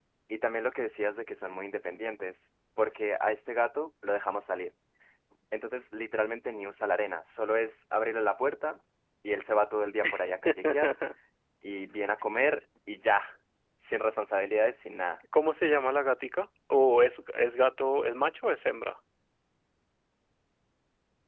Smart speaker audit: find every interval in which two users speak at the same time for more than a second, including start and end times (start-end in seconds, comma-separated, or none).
none